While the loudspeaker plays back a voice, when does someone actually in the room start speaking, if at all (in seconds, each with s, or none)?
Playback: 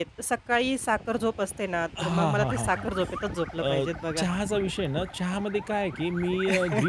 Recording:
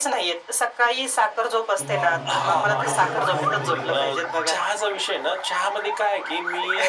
1.8 s